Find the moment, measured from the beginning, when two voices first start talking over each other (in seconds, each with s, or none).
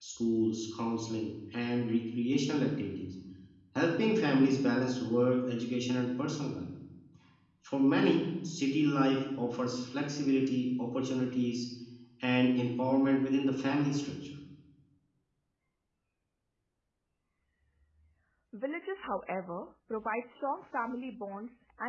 none